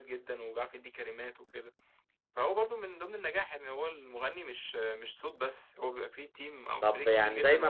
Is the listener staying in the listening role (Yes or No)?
No